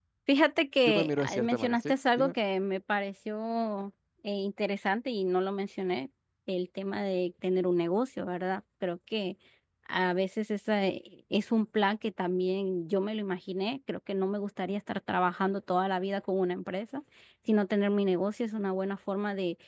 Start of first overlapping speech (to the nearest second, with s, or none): 1 s